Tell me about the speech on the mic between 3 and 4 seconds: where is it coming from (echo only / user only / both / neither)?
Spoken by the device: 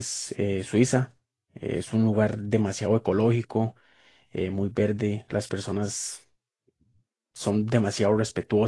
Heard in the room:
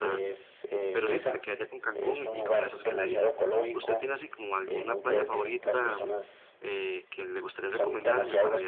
both